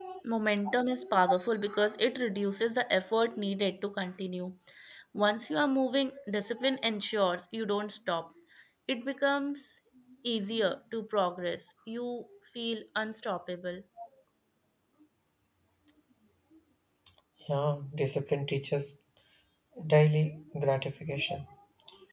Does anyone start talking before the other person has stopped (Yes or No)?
No